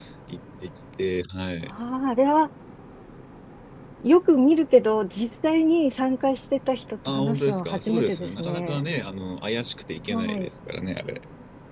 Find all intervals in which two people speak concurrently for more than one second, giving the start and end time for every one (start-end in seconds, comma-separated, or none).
7.0-8.8